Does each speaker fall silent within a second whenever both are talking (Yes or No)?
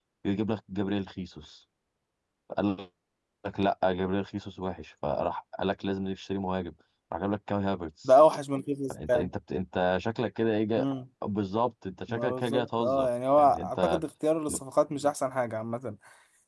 No